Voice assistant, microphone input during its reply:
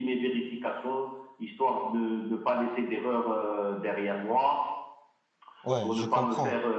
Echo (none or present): present